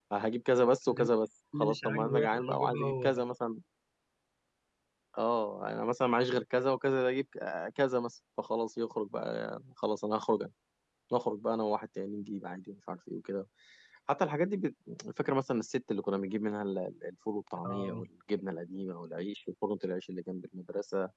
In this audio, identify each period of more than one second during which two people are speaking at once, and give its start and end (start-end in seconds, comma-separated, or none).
1.6-3.2